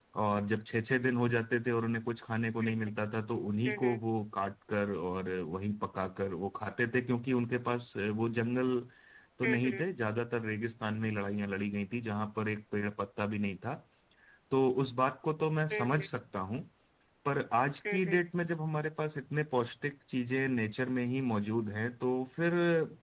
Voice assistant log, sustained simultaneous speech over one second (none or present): none